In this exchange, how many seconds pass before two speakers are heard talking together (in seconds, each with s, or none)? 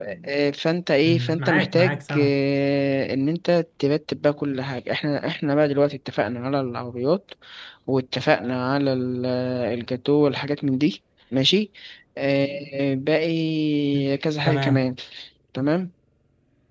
1.0 s